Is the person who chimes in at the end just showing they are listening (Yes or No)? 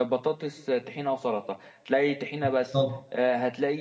Yes